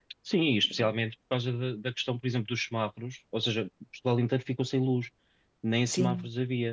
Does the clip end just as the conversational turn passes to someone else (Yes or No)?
No